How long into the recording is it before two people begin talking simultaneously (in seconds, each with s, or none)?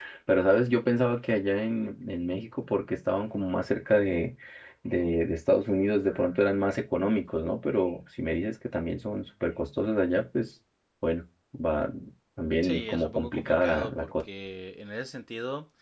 12.6 s